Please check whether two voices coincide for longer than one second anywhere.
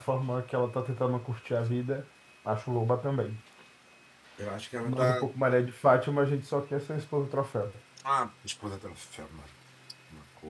No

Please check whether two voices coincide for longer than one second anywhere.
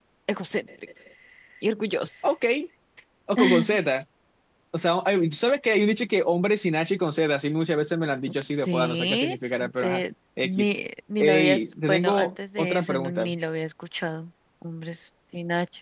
Yes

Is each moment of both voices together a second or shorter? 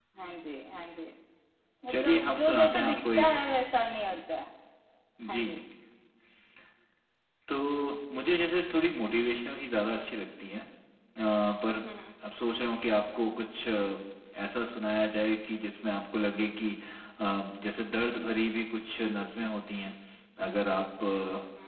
No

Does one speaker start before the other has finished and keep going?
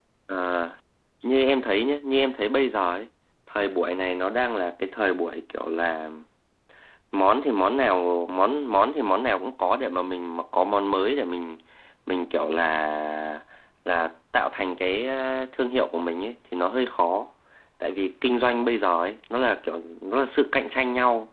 No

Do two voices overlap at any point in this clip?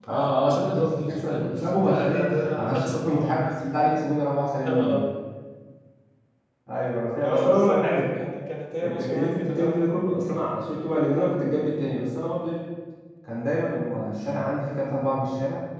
Yes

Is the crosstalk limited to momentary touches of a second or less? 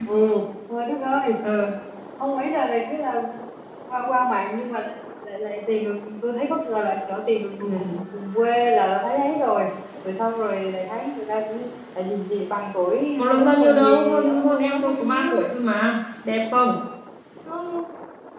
No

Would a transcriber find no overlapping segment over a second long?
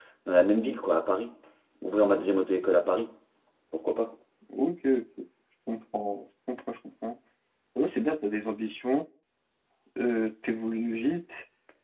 Yes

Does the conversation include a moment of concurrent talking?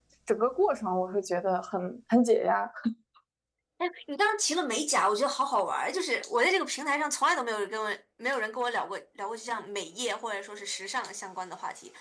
No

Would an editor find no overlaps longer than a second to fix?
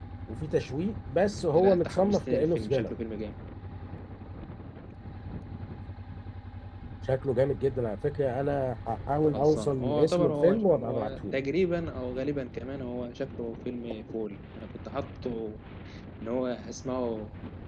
No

